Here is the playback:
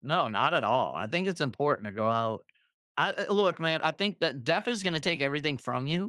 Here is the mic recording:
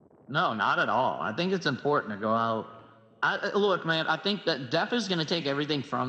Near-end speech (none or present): none